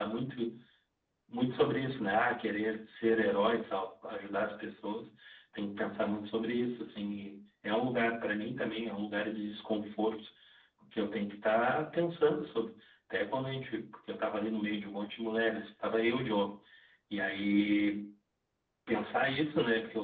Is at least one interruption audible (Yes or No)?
No